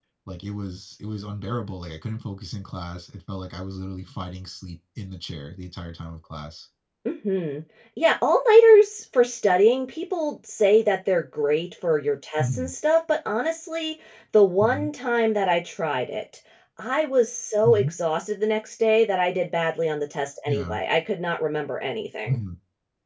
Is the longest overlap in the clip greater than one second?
No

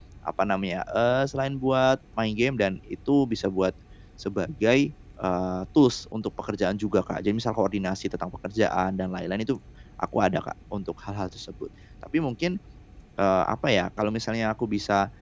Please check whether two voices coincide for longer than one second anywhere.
No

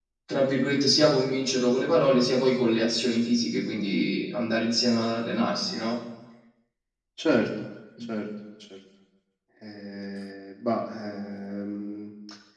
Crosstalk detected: No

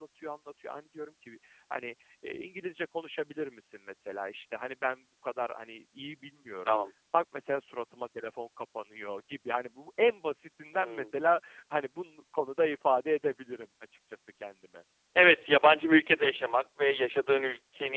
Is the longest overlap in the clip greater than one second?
No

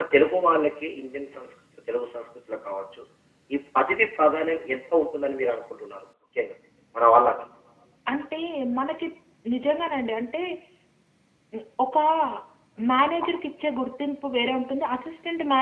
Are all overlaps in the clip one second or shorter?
Yes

